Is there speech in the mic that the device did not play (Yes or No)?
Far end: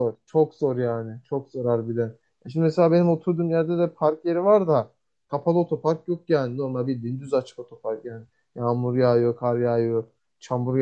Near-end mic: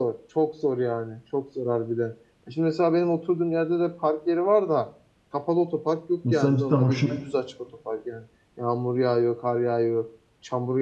Yes